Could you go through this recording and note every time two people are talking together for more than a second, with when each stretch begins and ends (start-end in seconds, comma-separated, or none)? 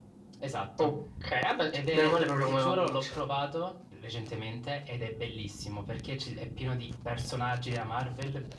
1.7-3.0